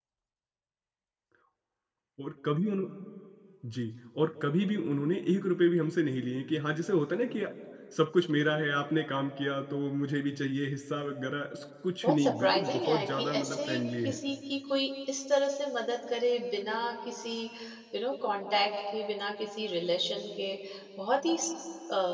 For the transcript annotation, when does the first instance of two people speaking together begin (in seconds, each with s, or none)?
12.0 s